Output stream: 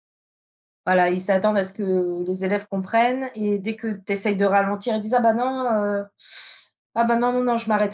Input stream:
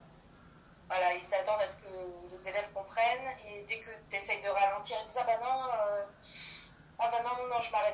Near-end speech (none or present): none